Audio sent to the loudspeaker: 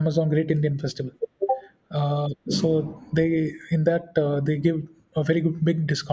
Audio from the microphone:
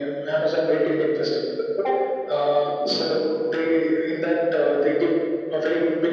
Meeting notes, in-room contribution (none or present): none